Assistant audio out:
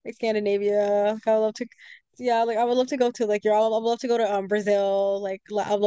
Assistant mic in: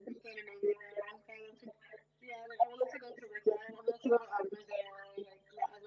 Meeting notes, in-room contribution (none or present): none